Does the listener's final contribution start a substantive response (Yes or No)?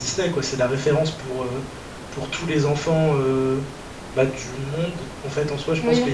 Yes